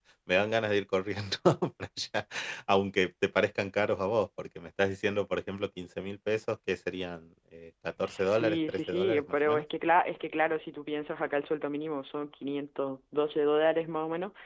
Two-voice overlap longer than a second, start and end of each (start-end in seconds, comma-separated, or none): 8.0-9.6